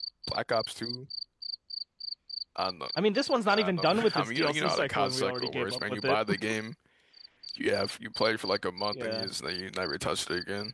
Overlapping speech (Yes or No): Yes